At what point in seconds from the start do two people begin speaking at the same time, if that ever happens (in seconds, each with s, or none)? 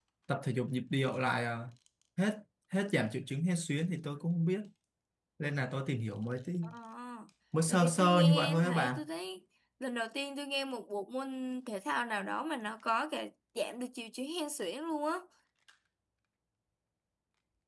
7.7 s